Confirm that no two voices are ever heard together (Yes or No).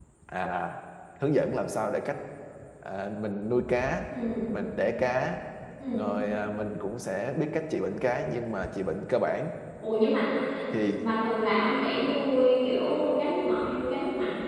Yes